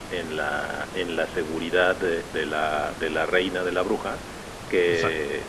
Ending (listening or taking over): listening